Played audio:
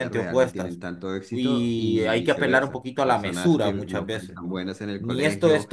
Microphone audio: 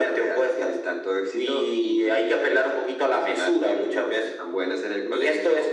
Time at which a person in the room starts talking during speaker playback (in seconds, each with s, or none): none